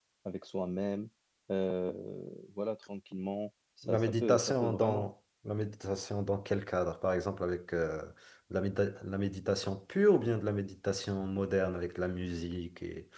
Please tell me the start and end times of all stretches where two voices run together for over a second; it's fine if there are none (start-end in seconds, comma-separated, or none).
3.8-5.1